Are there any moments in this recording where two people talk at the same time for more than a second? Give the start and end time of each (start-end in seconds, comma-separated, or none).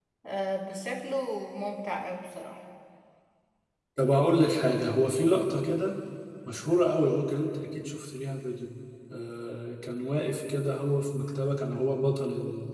none